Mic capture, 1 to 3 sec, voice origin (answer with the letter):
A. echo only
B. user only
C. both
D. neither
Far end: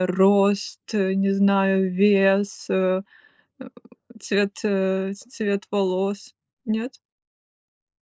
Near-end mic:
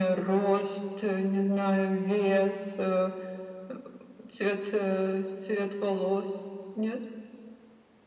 A